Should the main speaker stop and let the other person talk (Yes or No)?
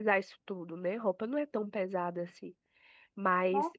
No